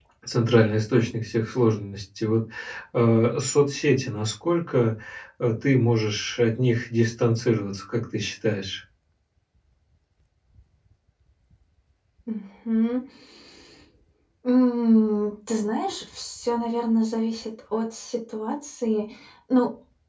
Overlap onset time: none

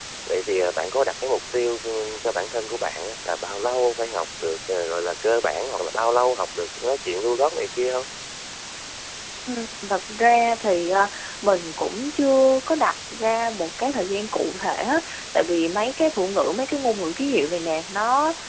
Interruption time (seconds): none

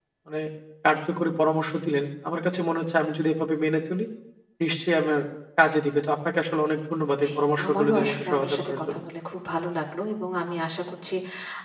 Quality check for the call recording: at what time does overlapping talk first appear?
7.7 s

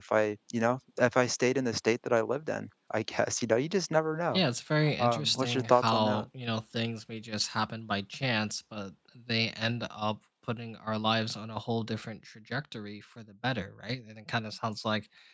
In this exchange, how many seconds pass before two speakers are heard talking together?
5.0 s

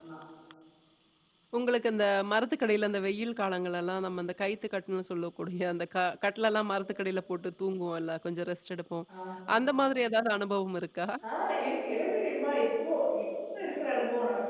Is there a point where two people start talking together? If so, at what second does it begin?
none

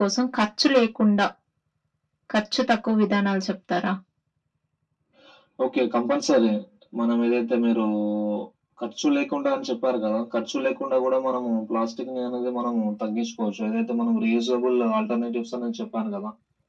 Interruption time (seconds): none

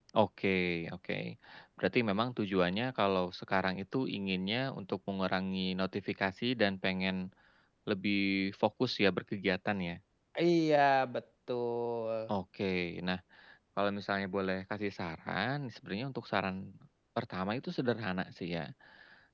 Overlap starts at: none

